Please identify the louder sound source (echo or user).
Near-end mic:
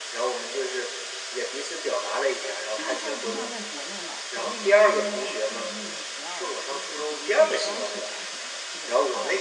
echo